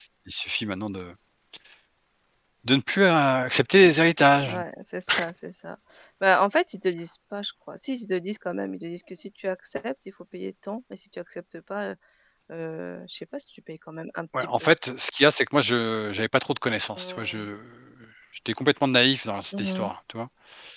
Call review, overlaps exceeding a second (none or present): none